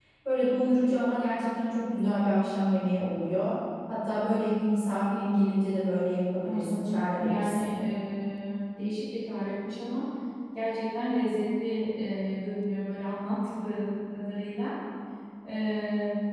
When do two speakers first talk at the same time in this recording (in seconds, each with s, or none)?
6.4 s